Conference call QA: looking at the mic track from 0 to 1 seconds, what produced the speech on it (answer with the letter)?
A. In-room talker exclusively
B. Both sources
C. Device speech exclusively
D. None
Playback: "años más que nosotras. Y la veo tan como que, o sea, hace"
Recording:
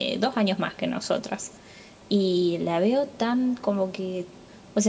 C